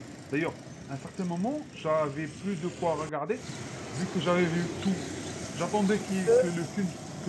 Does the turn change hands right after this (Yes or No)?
No